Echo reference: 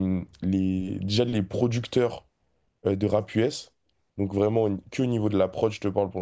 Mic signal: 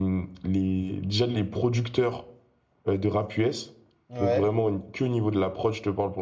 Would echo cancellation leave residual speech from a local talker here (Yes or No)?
Yes